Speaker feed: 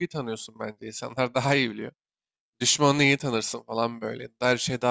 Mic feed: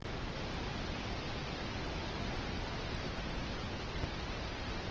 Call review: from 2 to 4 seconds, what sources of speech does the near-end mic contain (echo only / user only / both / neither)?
neither